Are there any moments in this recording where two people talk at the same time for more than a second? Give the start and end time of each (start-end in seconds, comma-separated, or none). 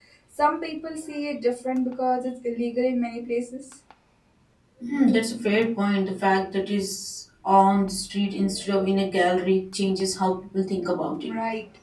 none